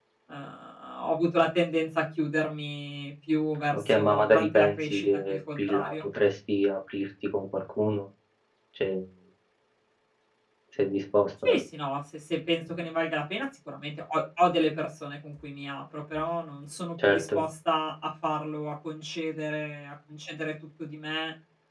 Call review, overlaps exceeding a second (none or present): present